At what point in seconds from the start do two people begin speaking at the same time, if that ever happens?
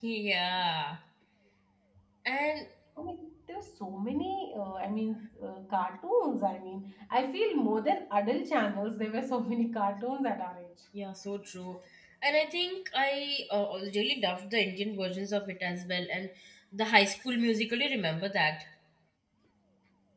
none

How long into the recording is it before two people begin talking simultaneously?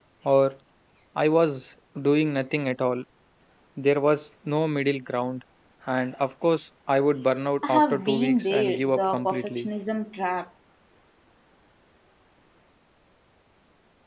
7.6 s

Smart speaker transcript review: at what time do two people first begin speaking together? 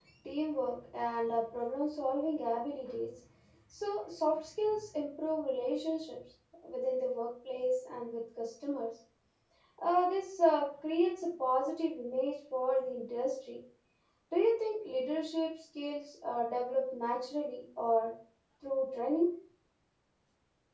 none

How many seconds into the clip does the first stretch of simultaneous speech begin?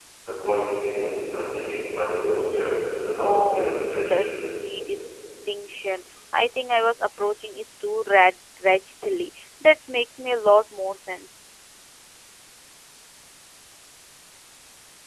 3.1 s

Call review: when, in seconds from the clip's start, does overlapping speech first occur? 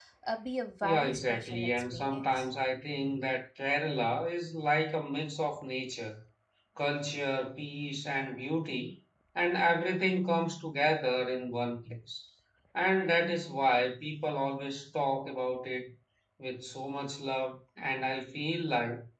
0.8 s

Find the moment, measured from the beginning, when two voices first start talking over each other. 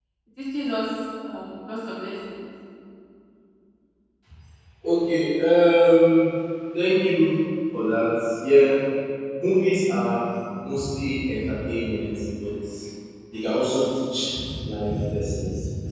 none

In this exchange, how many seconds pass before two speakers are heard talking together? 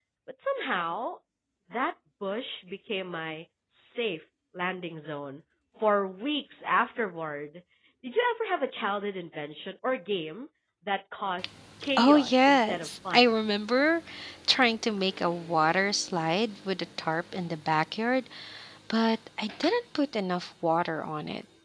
12.0 s

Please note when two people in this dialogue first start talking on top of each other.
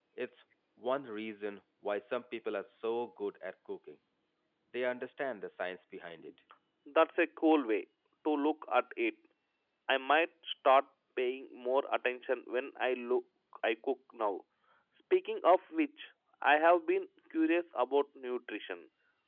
none

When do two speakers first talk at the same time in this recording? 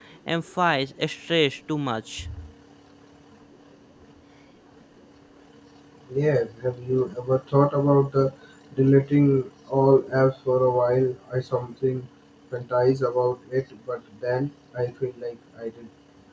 none

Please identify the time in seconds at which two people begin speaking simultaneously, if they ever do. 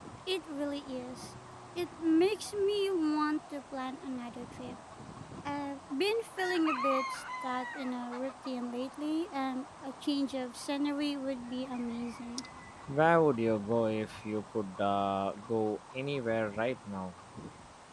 none

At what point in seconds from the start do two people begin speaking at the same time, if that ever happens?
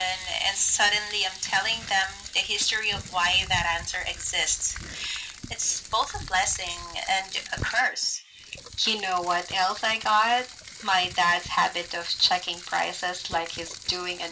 none

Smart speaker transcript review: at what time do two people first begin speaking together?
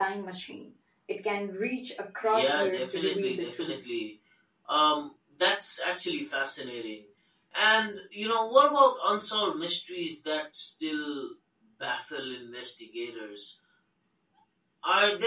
2.2 s

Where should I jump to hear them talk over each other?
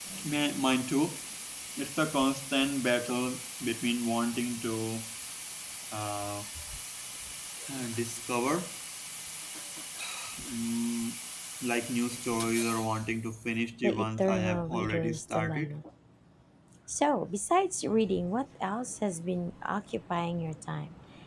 13.8 s

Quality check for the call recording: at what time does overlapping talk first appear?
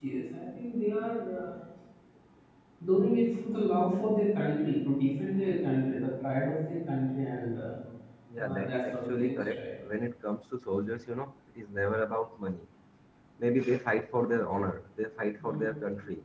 8.4 s

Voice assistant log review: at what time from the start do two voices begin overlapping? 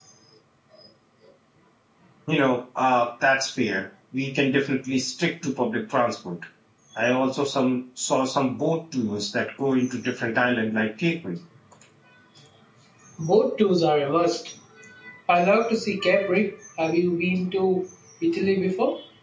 none

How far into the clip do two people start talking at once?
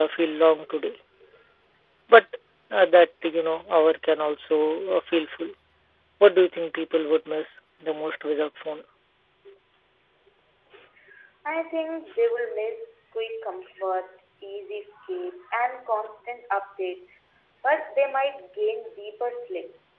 none

